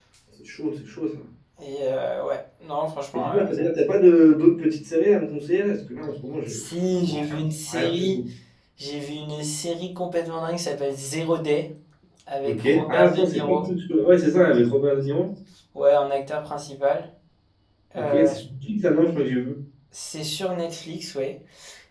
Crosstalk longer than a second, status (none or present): present